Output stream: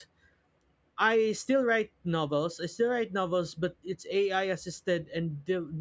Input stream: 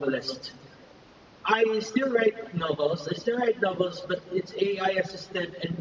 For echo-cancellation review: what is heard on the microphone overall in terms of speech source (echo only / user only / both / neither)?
echo only